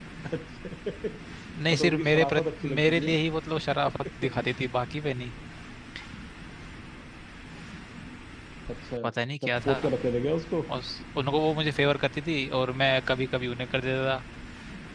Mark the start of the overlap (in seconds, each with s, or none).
1.7 s